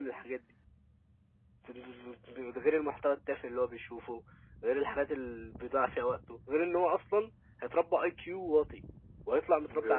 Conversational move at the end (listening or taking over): listening